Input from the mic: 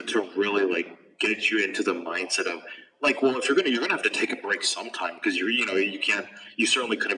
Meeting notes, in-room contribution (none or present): none